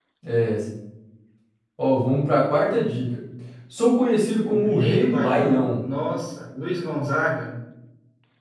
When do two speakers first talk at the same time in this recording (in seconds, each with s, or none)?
4.5 s